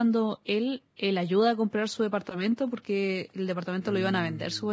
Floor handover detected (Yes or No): No